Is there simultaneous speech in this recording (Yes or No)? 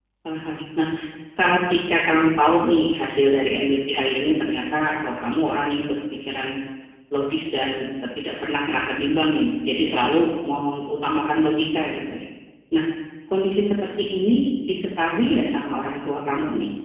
No